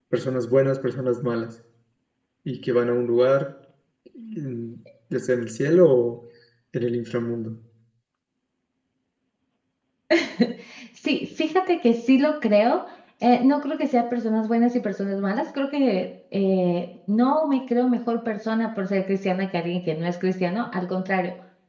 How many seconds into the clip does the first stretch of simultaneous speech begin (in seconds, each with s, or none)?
none